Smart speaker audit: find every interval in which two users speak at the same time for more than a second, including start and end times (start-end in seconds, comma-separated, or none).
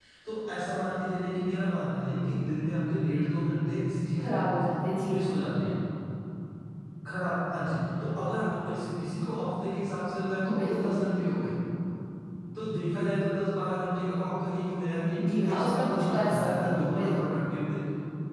15.2-17.3